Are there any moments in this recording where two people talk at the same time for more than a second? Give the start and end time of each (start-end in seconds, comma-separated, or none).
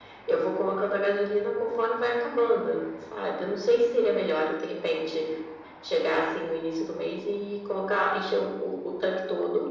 none